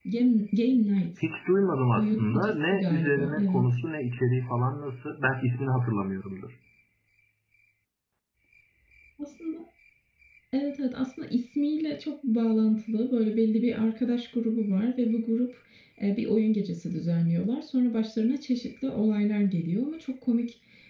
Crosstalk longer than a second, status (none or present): present